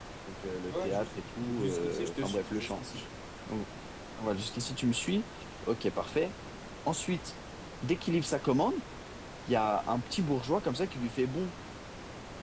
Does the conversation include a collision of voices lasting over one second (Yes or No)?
Yes